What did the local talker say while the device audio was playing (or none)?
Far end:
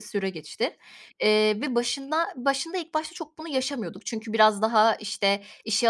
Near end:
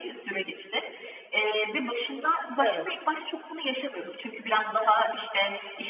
Evet.